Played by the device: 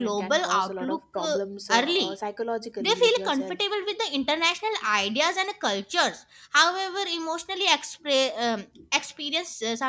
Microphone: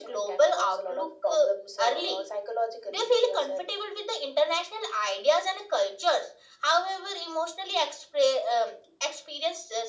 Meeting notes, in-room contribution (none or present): none